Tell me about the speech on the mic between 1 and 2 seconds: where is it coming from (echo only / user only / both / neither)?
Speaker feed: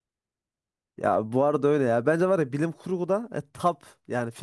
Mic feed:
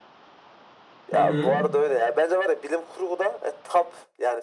both